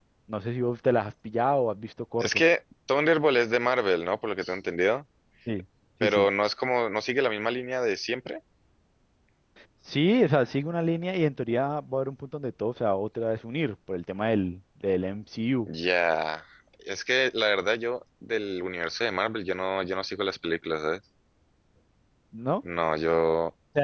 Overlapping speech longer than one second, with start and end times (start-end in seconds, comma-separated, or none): none